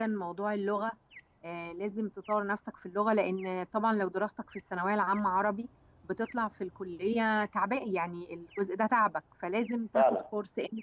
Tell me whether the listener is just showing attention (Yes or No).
Yes